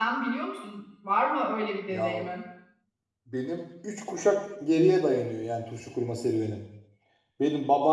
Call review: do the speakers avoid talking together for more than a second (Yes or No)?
Yes